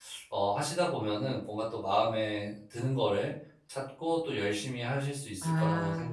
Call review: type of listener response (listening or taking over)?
taking over